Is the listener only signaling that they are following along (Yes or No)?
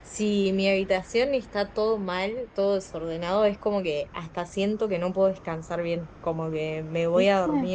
Yes